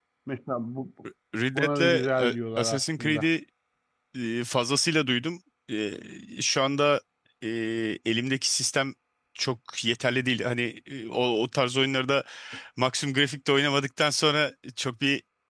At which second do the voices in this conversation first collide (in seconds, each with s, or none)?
1.6 s